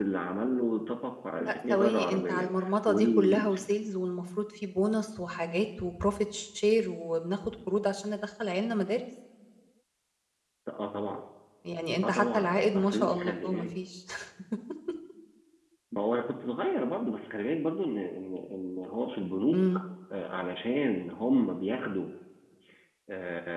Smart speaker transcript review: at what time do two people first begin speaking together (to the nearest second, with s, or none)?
1 s